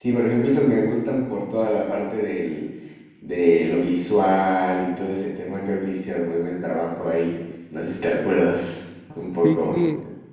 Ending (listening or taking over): taking over